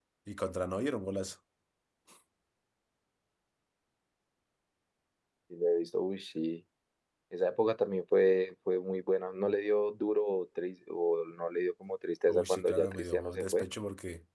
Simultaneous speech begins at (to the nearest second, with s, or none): 12 s